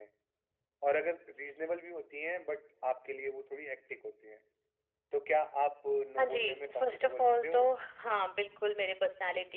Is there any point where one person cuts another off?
Yes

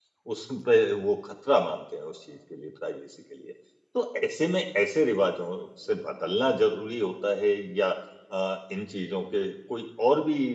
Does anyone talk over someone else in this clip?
No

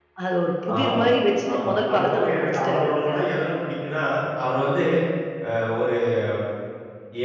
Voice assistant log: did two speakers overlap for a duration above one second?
Yes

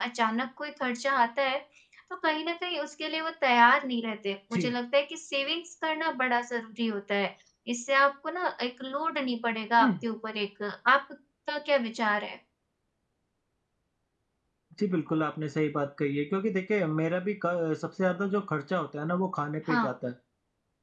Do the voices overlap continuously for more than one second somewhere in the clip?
No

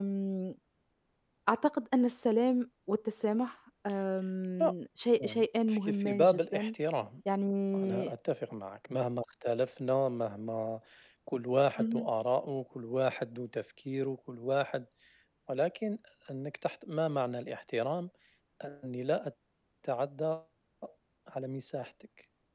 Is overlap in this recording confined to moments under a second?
No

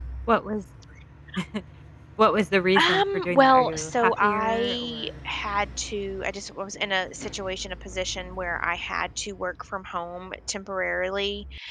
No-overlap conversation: No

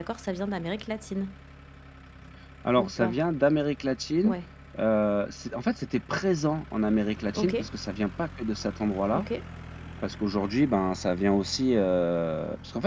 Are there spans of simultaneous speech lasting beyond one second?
No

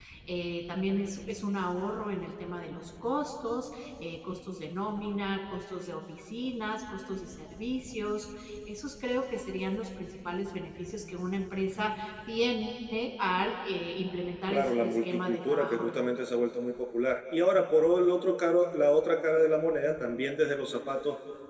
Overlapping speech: Yes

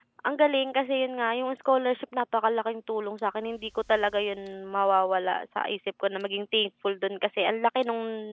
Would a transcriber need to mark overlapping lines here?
No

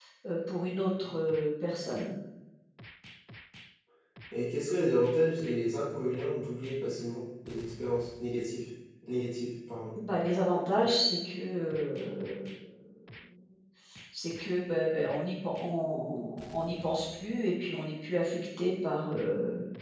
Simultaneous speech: No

